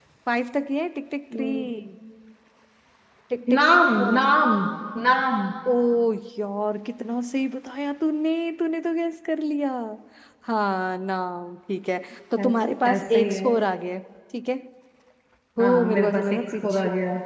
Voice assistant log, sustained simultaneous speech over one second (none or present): present